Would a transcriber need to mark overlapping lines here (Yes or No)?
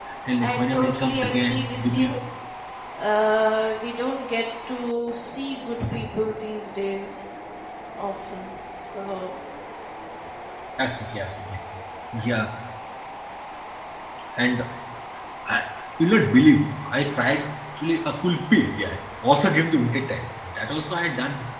Yes